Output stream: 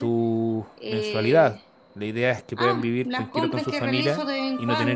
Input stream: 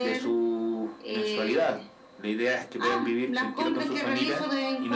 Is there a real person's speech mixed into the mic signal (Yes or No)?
No